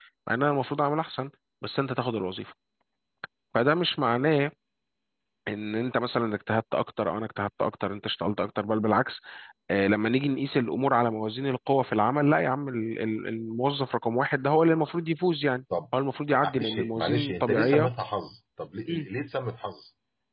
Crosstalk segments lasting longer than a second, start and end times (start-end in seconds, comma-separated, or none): 16.6-17.9